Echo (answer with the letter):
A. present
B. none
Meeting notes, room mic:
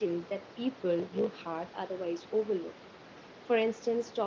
B